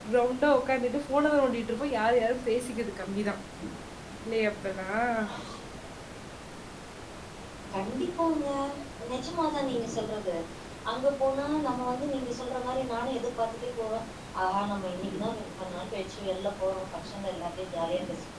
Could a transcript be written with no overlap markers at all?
Yes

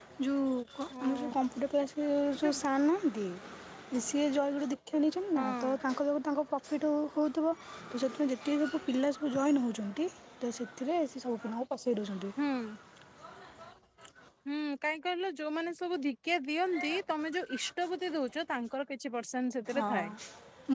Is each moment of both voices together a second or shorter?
Yes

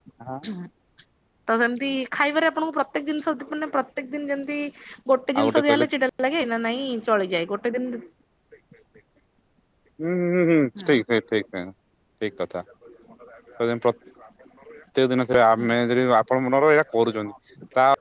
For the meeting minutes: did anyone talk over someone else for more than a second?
No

